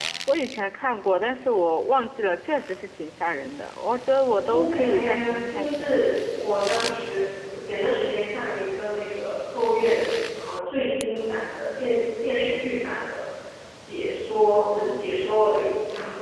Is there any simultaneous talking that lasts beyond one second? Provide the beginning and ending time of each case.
4.4-5.9

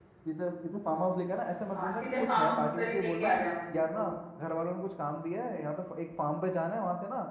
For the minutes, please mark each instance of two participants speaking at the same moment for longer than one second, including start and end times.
1.8-3.3

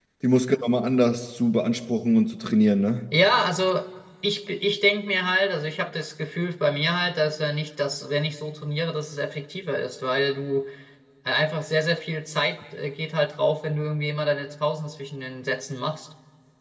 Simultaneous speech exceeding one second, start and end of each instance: none

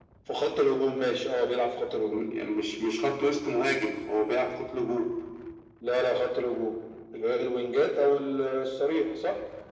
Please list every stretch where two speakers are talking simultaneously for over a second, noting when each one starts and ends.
none

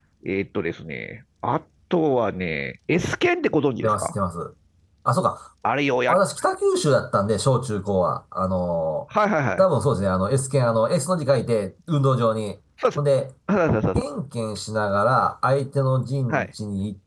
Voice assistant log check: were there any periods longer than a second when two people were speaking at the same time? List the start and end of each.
none

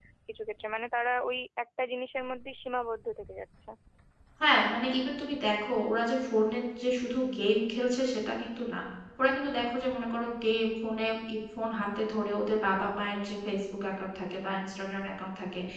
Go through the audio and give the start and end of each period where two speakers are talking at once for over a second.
none

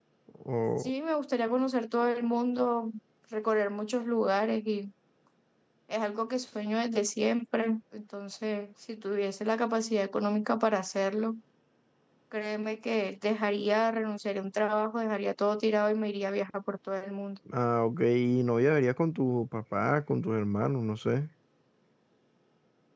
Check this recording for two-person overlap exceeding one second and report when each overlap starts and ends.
none

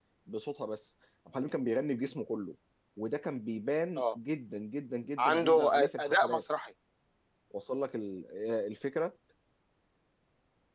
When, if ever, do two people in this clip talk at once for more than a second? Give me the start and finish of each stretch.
5.2-6.4

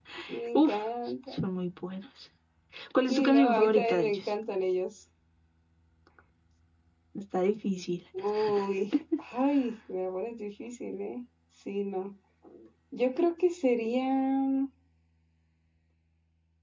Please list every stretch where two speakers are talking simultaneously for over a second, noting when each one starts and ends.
3.1-4.3

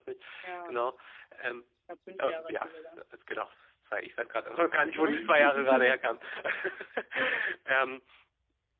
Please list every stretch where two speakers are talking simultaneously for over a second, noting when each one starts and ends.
4.7-5.9

